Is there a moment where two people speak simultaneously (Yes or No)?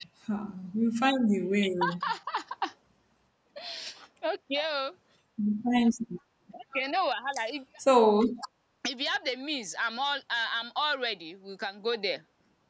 No